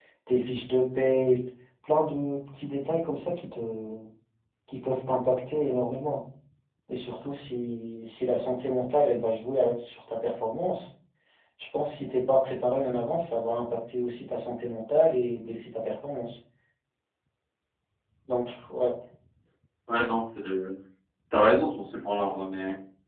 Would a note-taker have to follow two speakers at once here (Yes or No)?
No